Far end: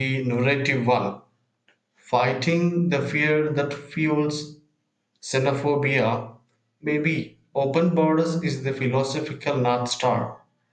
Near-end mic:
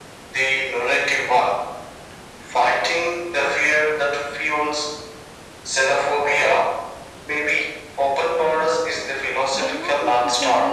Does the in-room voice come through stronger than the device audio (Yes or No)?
No